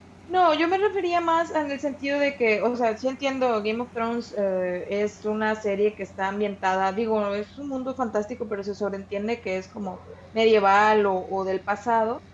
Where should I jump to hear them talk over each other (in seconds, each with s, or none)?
none